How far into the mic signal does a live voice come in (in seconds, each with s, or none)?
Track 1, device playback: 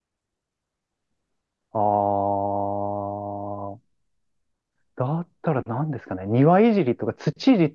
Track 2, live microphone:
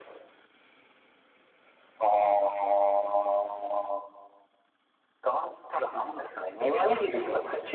none